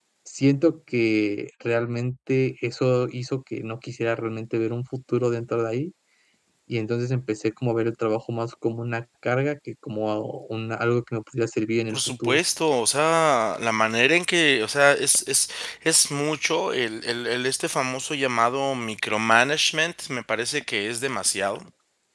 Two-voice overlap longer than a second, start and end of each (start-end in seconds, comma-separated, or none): none